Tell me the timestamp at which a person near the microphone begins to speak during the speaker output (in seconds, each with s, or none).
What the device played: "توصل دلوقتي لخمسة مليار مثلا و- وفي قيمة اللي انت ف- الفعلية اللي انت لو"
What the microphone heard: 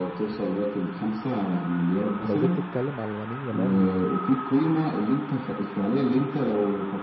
2.2 s